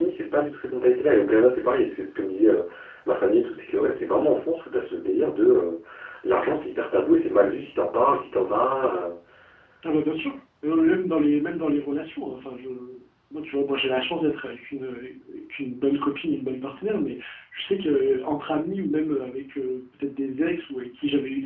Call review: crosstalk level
none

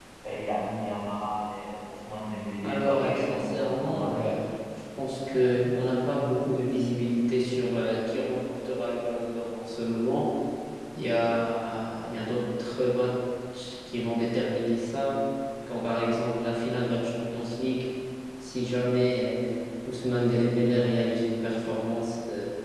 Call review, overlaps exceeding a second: present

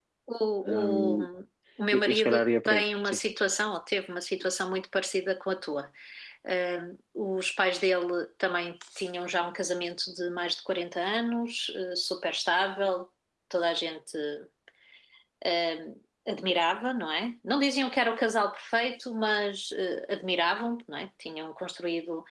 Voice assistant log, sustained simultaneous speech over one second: present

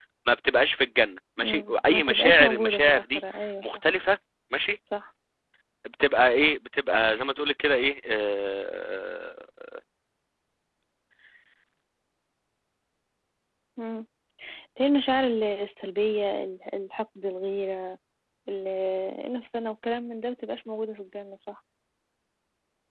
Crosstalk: present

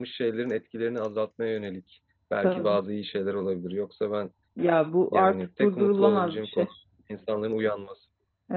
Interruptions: present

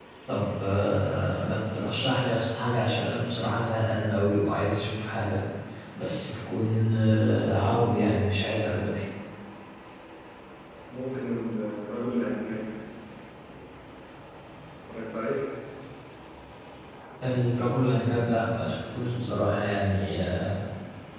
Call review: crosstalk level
none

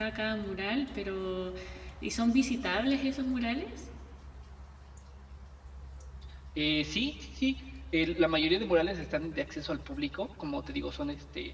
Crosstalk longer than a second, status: none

